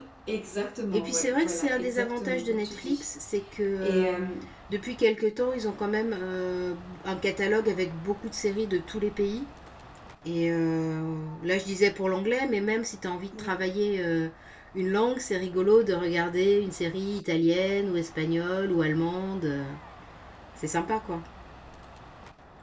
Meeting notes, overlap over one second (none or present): present